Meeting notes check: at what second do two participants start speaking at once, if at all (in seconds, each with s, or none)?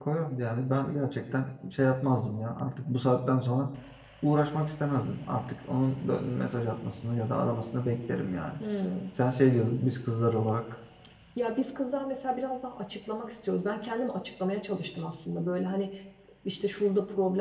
none